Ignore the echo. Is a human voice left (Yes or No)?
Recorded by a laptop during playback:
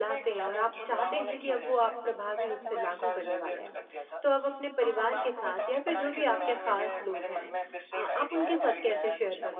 Yes